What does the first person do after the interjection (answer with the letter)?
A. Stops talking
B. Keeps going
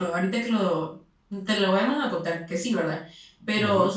B